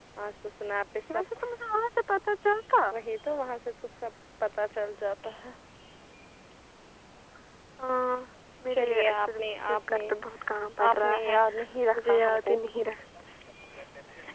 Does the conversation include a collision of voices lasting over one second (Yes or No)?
Yes